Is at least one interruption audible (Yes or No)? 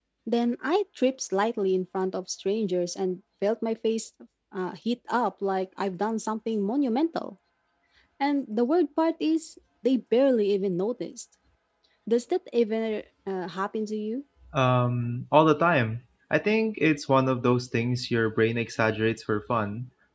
No